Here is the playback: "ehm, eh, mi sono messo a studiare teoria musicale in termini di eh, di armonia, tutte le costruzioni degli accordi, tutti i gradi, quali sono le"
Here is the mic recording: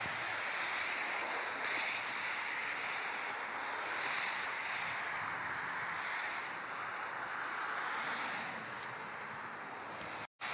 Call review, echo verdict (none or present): none